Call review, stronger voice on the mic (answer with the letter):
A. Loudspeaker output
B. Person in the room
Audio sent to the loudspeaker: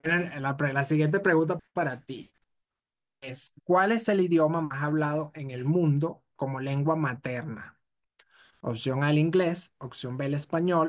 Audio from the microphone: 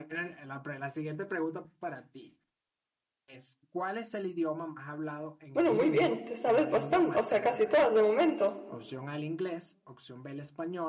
B